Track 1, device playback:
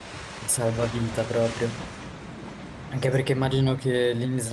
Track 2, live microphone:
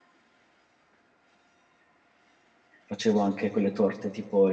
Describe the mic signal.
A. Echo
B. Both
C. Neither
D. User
D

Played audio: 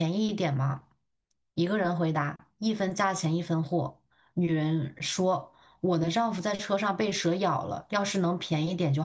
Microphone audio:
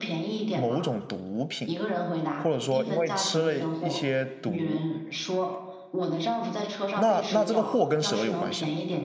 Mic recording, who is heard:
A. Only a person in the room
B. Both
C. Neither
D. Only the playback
B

